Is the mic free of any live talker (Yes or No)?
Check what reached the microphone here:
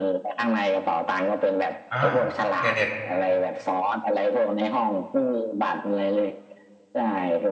No